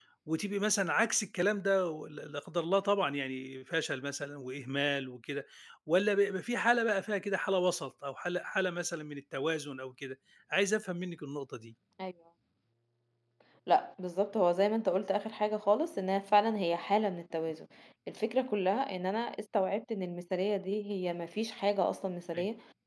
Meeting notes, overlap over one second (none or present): none